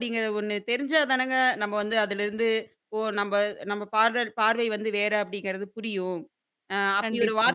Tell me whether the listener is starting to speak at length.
No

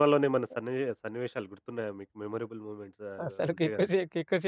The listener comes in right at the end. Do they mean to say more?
Yes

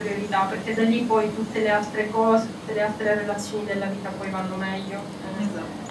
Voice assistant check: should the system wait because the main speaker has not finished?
Yes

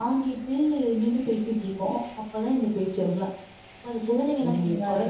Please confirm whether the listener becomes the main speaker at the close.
Yes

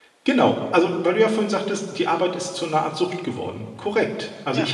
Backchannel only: Yes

